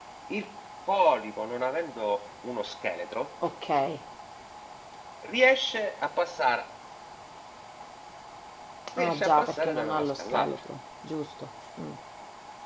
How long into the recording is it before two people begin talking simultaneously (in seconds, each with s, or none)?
9.0 s